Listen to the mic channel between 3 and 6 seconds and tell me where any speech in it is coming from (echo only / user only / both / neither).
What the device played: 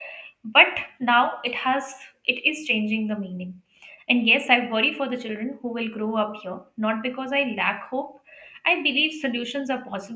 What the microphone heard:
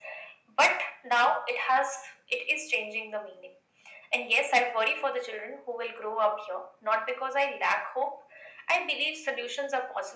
echo only